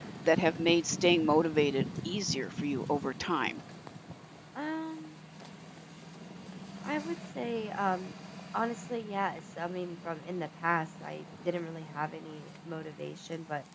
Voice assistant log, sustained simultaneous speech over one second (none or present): none